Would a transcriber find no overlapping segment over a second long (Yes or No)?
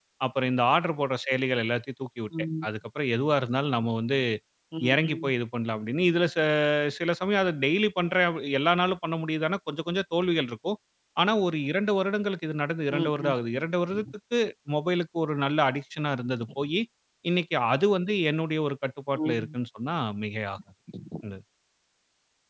Yes